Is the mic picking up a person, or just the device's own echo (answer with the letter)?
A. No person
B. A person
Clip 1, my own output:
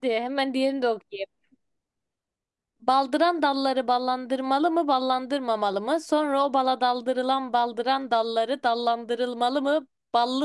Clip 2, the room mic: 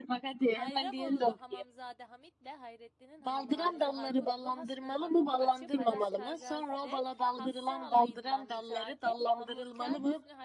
B